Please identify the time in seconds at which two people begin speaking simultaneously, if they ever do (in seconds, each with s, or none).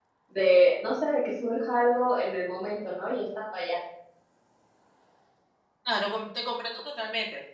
none